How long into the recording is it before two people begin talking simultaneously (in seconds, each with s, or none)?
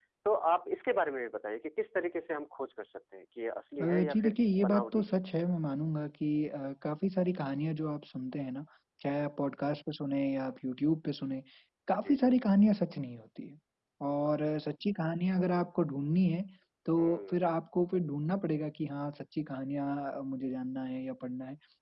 3.8 s